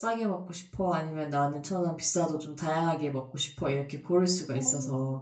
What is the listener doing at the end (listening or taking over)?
taking over